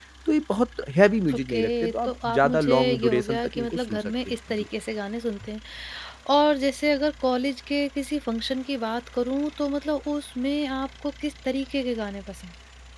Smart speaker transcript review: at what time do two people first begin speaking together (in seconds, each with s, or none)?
1.3 s